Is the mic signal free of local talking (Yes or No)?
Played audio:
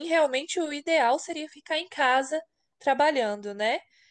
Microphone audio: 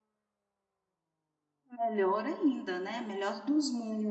No